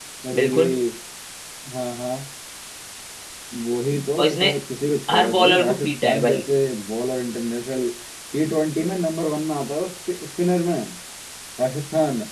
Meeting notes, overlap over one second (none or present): present